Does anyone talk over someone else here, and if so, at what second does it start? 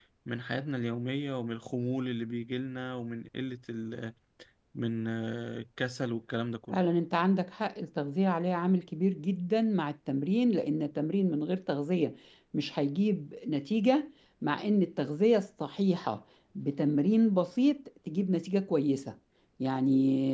none

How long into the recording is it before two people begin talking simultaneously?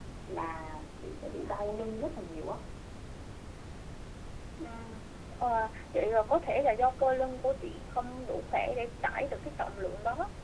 none

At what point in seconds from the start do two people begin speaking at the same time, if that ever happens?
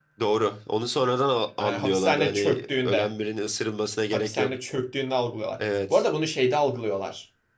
1.6 s

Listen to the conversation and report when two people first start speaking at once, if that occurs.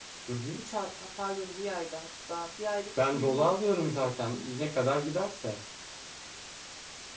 3.0 s

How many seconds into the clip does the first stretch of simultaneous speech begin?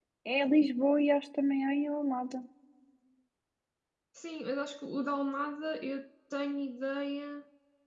none

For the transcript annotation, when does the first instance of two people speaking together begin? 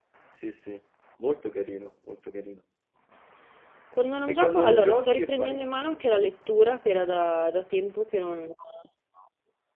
4.3 s

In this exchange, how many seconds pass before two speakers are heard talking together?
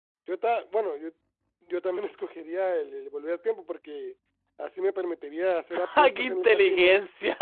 5.7 s

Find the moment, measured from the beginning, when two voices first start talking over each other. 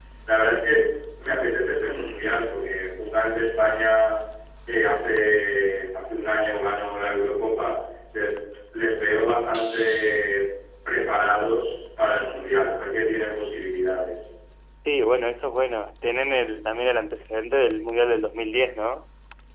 none

